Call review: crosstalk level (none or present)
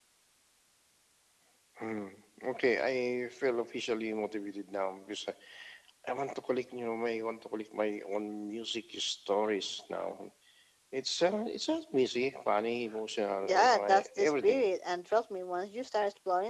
present